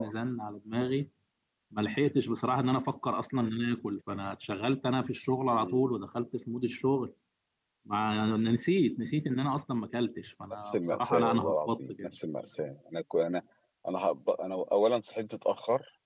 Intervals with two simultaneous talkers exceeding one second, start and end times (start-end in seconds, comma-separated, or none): 10.6-12.1